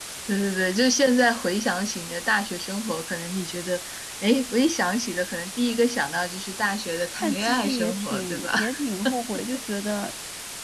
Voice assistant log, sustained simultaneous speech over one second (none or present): present